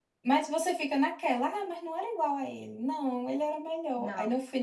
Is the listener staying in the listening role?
Yes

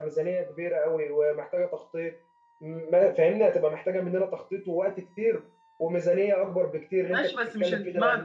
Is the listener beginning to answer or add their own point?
Yes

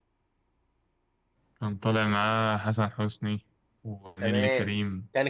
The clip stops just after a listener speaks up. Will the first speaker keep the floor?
No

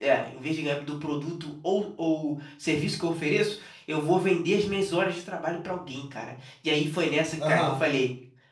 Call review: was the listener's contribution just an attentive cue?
Yes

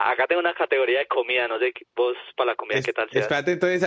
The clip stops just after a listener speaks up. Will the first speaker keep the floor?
No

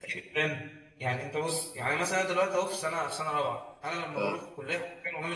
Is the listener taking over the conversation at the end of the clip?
No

